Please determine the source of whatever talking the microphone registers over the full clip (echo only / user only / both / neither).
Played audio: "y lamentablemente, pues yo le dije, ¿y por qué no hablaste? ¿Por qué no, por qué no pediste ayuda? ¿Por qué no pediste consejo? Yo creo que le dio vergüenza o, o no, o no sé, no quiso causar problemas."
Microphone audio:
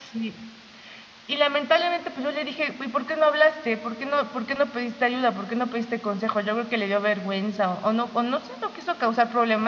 echo only